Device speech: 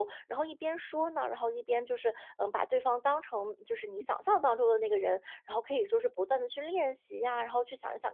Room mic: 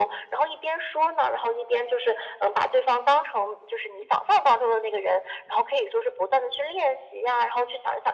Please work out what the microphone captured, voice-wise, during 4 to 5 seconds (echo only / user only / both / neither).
echo only